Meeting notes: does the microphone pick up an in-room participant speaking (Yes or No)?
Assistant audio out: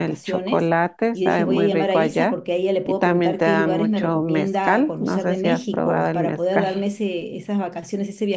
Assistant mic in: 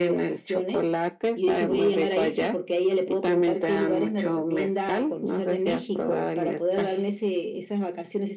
No